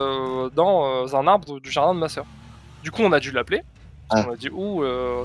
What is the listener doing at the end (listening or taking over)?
listening